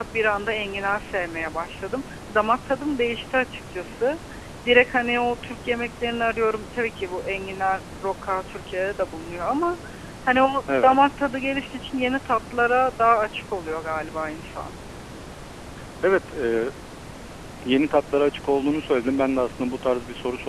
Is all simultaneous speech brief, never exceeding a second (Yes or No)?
Yes